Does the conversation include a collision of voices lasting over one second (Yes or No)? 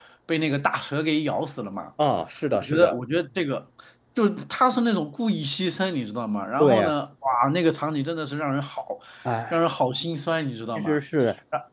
No